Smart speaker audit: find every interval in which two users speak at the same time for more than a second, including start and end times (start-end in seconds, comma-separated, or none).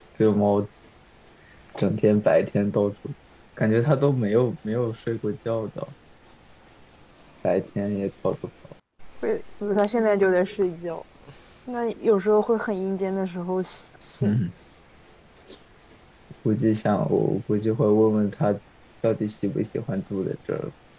none